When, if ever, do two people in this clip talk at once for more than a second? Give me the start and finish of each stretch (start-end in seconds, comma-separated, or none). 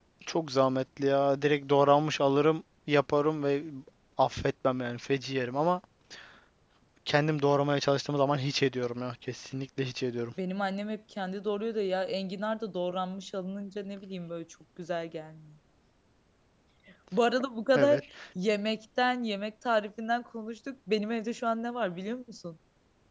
none